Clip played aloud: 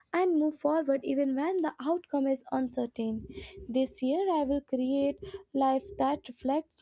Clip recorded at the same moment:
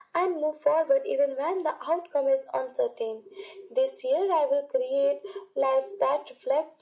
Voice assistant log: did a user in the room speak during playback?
No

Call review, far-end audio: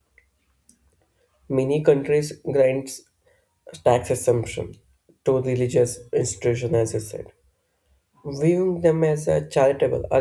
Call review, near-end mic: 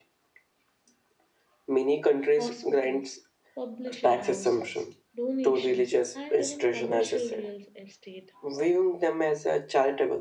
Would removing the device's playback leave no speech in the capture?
No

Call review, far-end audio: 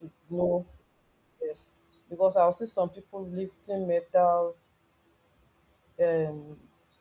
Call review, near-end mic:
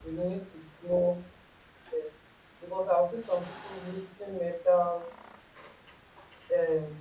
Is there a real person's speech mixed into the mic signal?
No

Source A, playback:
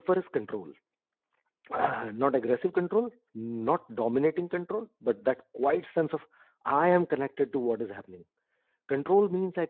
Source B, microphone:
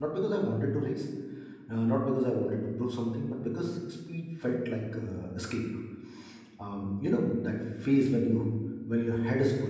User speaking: Yes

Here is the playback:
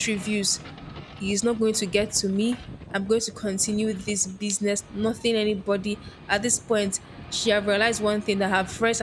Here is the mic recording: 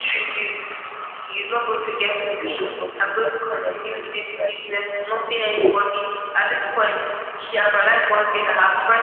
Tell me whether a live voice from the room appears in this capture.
Yes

